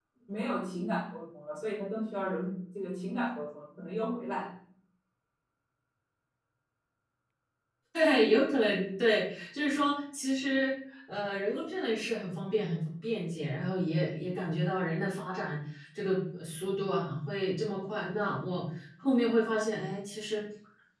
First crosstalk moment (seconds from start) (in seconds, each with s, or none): none